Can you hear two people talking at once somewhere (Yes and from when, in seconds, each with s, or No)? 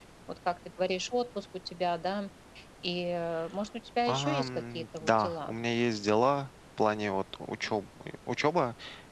Yes, from 4.1 s